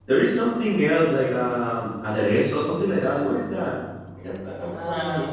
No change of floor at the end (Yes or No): No